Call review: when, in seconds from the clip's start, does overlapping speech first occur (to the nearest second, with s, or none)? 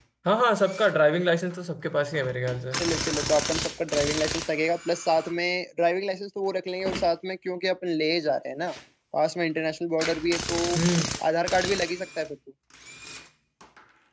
none